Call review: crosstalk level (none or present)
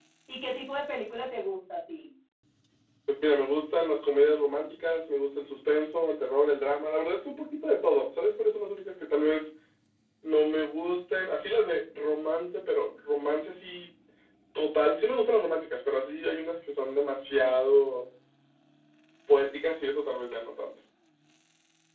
none